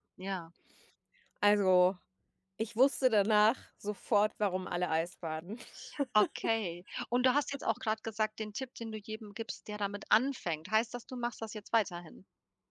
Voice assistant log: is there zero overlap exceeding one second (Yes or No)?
Yes